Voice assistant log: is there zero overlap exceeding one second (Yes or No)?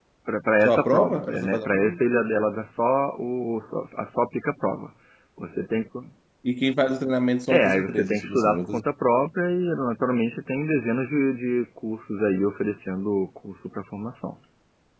No